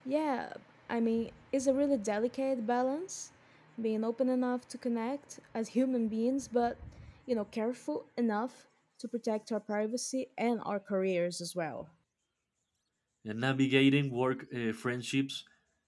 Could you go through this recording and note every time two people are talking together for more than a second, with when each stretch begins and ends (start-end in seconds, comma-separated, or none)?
none